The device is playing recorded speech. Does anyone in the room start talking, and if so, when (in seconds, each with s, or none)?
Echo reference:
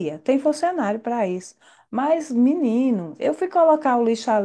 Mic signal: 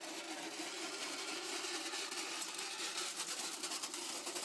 none